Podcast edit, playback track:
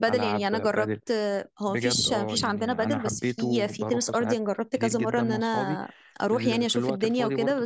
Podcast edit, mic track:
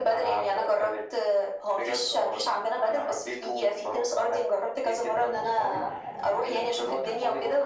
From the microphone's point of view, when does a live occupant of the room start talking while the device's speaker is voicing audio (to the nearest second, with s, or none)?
none